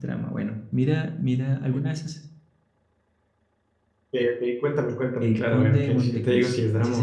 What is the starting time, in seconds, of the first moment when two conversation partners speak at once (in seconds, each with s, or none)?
5.2 s